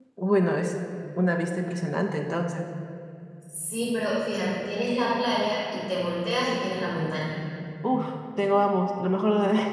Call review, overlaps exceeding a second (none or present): none